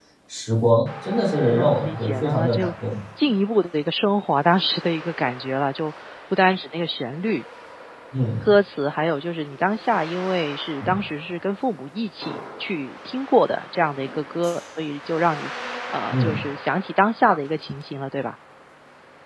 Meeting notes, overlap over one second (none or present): present